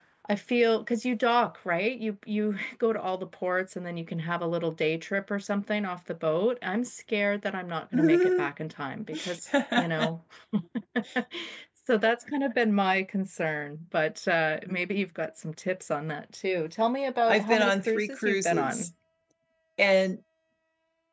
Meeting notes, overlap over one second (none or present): present